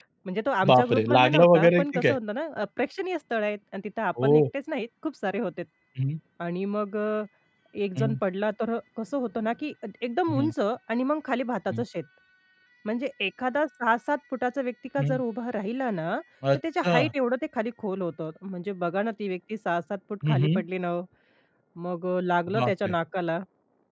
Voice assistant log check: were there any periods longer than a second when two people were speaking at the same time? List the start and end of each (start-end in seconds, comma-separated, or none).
0.7-2.2